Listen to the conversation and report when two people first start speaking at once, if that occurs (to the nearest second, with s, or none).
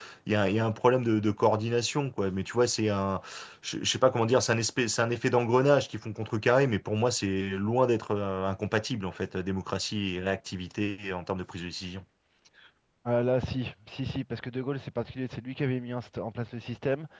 none